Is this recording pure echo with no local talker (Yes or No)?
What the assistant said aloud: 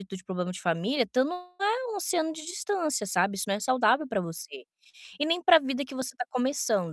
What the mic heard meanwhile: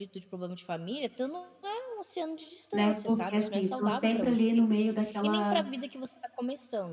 No